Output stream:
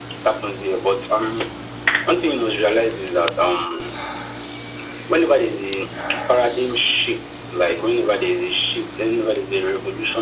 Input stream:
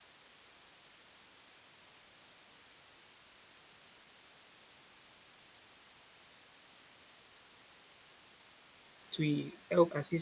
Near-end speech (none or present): present